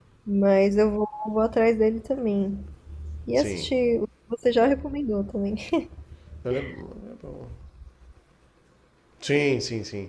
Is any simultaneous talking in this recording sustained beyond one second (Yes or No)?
No